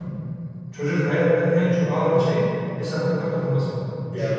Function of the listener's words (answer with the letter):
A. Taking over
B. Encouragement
A